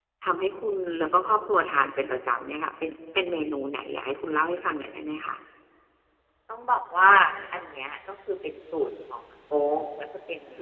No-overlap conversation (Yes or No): Yes